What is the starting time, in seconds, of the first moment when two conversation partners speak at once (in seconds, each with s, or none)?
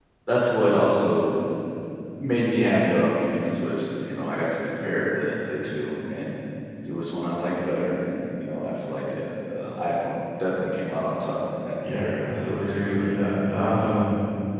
11.8 s